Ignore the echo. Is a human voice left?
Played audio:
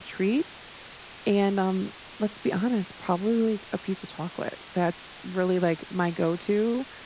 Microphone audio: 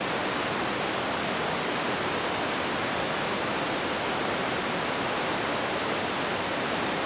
No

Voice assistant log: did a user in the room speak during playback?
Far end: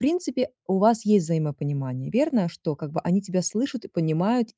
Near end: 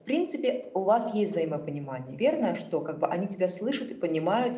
No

